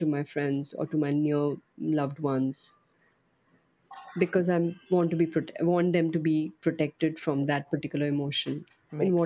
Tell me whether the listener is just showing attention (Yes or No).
No